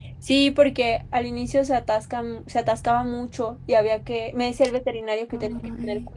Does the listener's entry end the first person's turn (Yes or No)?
No